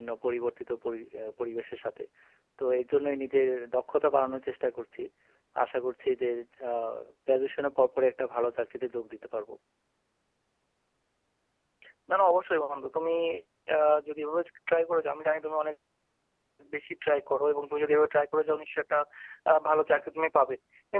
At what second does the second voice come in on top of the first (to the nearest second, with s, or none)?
none